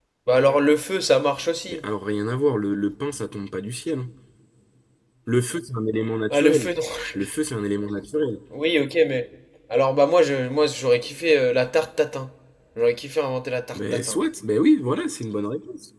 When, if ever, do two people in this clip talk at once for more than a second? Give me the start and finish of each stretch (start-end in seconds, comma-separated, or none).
none